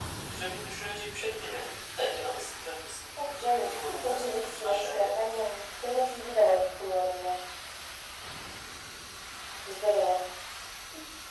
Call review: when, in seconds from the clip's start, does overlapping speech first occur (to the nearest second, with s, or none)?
3 s